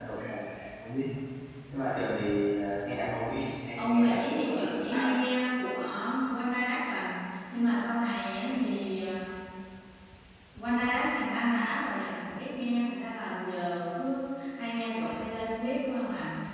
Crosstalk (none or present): present